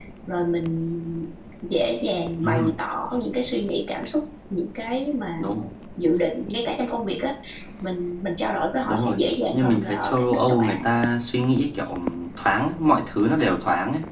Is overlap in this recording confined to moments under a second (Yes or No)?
No